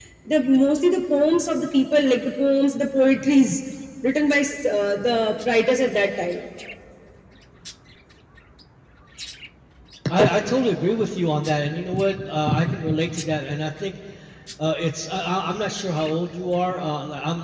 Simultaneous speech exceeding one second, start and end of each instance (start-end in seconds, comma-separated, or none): none